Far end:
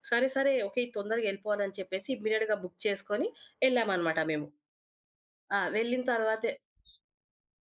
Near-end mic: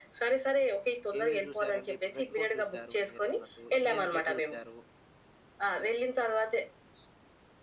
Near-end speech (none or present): present